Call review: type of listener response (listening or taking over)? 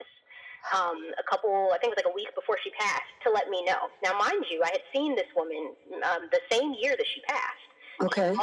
listening